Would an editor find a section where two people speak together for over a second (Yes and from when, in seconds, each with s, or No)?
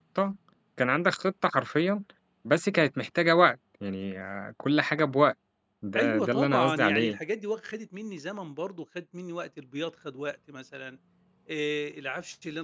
Yes, from 6.0 s